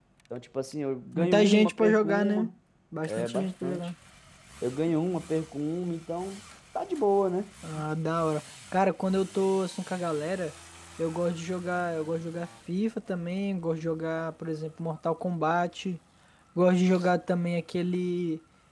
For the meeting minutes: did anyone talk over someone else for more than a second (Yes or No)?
Yes